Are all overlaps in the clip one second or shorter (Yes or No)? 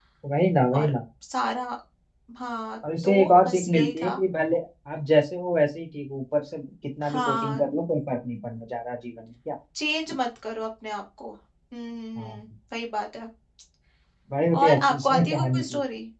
No